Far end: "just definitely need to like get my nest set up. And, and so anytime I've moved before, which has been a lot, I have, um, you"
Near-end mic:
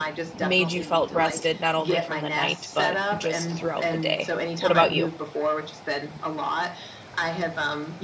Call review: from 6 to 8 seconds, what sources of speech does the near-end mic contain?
echo only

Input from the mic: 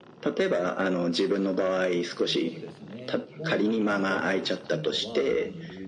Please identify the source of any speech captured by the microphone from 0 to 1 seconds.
echo only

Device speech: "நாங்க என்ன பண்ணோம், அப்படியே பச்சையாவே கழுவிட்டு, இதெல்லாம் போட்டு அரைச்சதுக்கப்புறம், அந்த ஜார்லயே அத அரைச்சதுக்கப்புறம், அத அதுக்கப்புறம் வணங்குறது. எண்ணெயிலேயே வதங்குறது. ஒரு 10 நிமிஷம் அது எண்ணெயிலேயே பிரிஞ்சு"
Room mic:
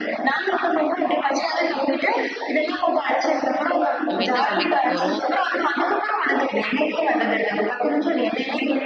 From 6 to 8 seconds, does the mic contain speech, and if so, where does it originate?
echo only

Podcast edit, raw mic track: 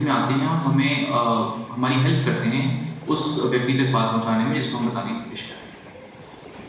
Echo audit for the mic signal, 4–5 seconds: echo only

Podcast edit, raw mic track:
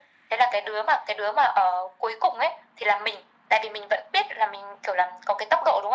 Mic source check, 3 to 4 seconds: echo only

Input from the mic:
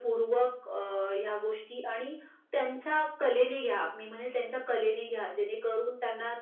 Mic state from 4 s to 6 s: echo only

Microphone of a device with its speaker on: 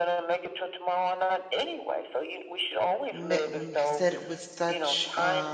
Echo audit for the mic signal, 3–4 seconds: both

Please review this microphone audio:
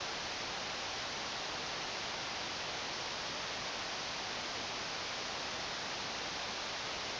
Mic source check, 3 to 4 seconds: neither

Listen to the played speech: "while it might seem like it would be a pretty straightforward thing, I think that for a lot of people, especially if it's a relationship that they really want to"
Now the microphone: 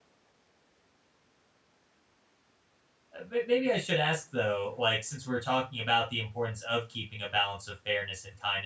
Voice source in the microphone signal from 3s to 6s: user only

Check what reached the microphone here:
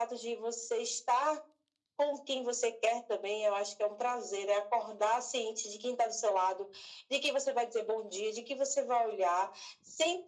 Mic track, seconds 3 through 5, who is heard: echo only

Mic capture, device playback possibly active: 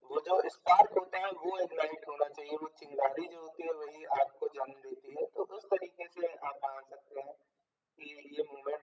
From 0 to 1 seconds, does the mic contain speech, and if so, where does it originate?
echo only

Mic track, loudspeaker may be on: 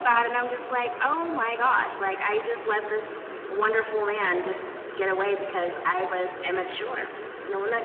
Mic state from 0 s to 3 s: echo only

